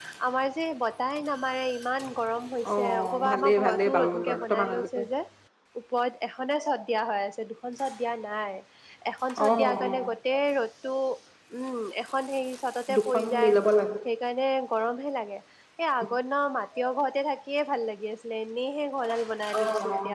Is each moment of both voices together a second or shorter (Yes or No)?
No